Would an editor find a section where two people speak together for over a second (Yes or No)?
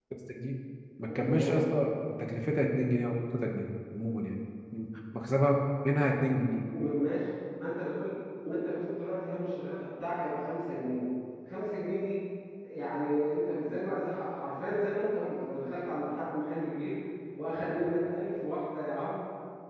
No